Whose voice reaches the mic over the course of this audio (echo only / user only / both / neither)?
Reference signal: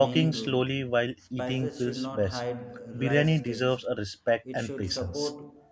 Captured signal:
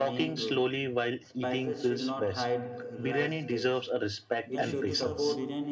both